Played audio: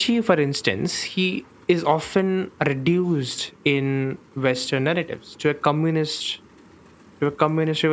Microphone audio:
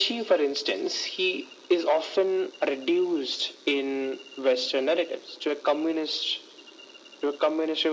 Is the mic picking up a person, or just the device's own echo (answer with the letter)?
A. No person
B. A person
A